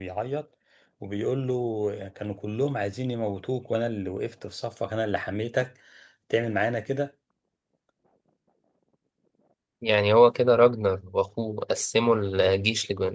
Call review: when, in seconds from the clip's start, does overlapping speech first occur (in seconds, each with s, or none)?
none